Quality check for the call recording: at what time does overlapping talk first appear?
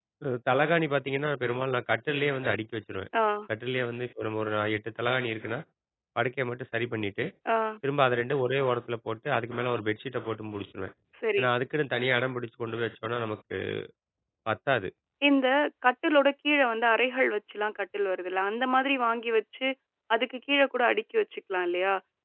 none

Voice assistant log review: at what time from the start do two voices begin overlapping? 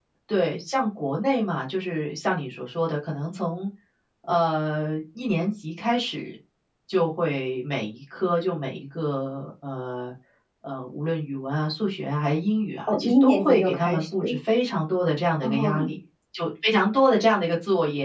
12.9 s

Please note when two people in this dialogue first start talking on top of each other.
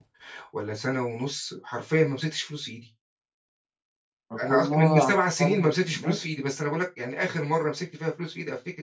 4.5 s

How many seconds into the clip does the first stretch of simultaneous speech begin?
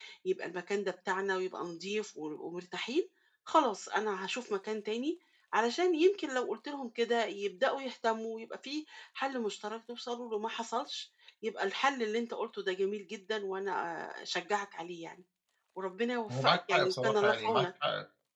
16.3 s

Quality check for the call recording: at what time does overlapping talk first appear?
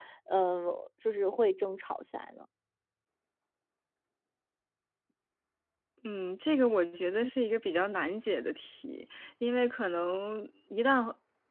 none

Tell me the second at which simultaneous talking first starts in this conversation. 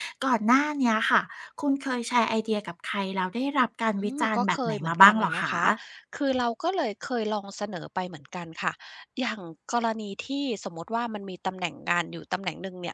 4.0 s

